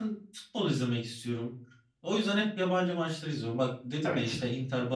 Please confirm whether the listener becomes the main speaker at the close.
No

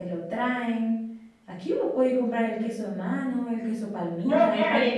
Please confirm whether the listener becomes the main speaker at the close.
Yes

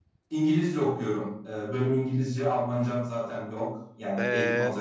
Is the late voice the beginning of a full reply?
Yes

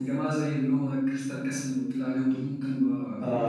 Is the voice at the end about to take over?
Yes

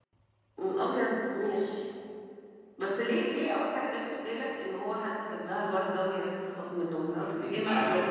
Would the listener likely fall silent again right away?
No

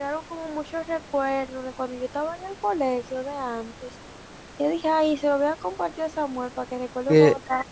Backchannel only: No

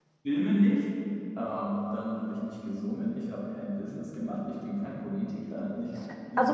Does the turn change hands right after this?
Yes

